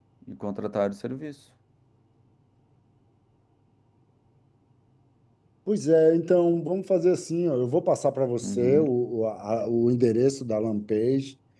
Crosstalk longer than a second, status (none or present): none